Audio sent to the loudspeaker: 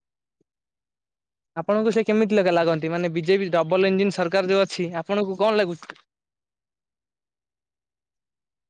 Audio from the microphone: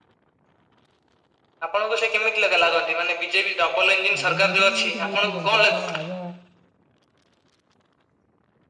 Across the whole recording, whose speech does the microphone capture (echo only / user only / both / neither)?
both